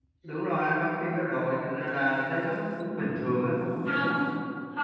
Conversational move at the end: taking over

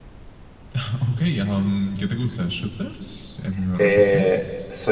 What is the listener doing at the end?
taking over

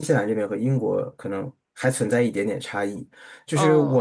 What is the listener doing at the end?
listening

